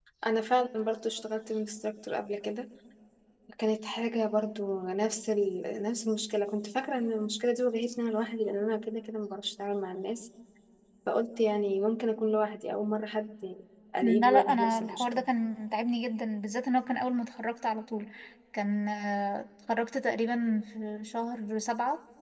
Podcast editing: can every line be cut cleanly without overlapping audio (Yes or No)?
No